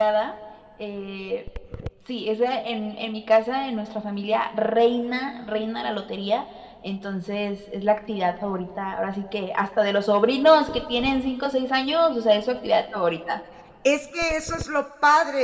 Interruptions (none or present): none